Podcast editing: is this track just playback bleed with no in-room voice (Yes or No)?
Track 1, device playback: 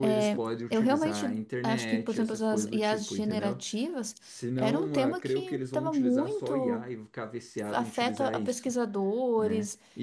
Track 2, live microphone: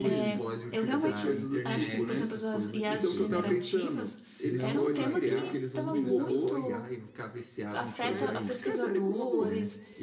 No